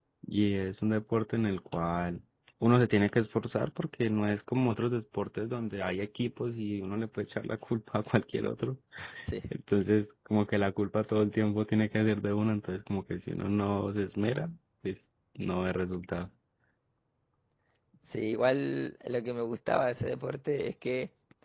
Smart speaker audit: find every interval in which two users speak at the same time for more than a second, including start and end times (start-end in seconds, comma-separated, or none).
none